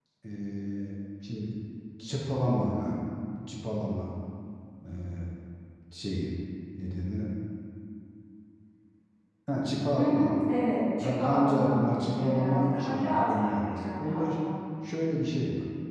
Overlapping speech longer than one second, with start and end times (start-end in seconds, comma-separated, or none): 11.0-14.3